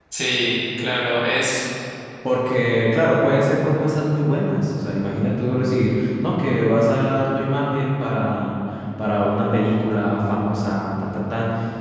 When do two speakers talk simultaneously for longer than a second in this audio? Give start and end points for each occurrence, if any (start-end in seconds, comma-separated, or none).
none